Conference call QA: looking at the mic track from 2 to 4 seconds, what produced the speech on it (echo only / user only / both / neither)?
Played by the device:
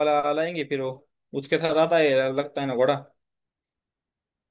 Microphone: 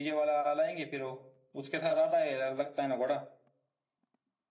echo only